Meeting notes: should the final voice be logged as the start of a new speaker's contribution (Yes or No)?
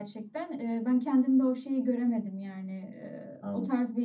No